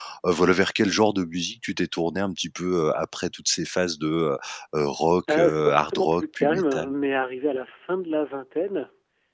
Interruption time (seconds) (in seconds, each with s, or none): 5.3 s